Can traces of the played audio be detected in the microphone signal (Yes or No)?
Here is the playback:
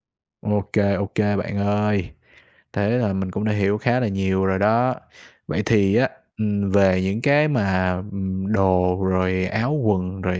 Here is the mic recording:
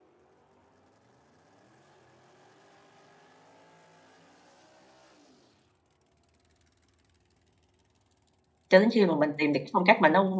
No